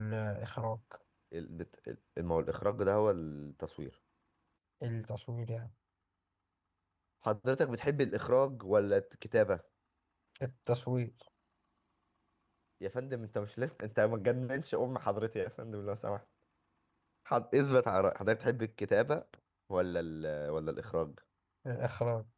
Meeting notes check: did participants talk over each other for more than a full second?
No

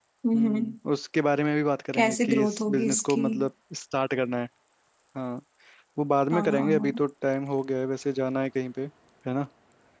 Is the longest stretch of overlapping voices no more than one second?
No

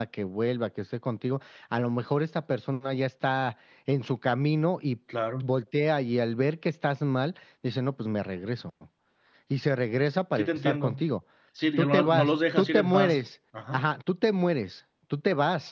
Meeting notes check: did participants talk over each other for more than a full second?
Yes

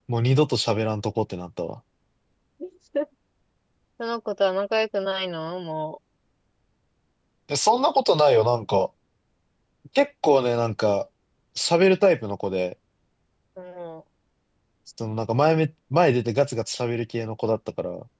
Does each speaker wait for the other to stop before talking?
Yes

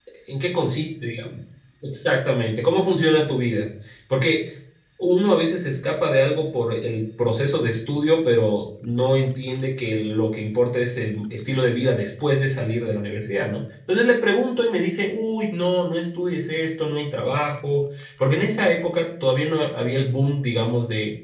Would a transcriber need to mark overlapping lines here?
No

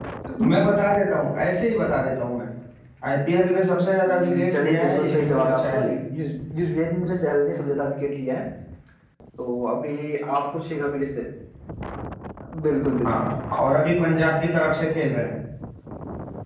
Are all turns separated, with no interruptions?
No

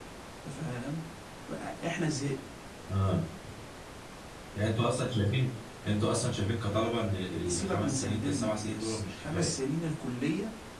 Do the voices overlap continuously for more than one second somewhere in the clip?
Yes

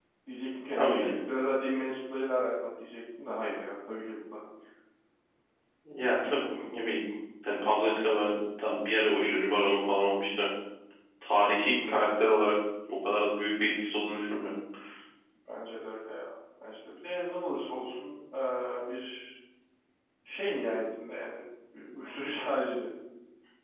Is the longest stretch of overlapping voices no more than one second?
Yes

